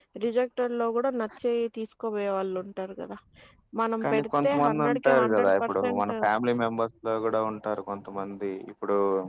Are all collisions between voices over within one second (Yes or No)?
No